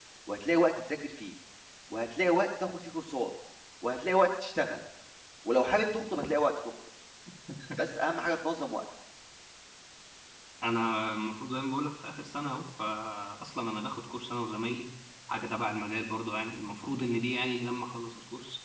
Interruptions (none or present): none